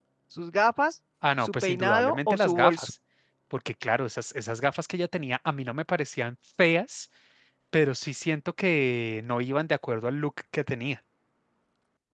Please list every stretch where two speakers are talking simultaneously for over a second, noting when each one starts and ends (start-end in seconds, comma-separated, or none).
1.4-2.9